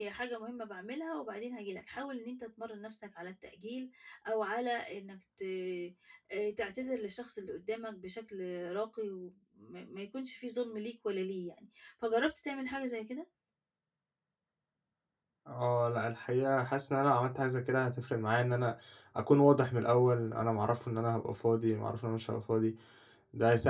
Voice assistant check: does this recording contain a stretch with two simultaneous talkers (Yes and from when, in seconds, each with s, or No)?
No